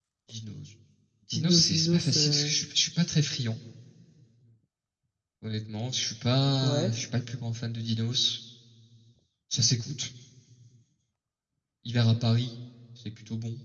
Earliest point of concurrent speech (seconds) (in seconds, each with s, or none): 1.4 s